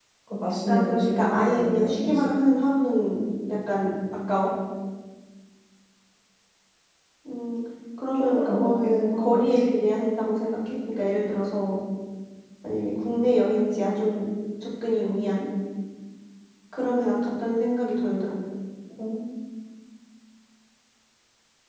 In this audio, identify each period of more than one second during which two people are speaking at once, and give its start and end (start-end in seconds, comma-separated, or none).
0.7-2.3, 8.1-9.6